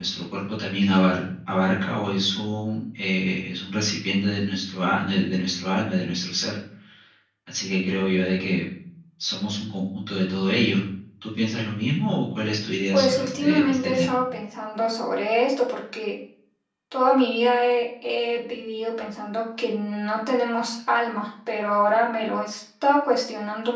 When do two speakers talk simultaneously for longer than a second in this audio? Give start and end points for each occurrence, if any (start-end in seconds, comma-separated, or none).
12.9-14.2